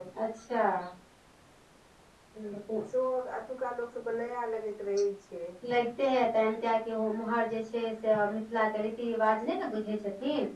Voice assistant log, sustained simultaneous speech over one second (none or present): none